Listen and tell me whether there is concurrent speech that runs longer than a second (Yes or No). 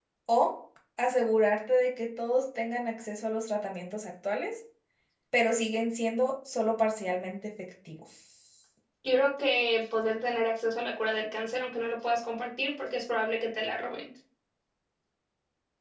No